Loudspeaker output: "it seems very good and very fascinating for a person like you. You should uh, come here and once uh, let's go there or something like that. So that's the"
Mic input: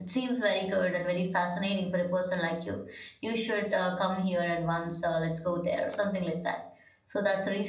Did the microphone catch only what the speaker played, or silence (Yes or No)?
Yes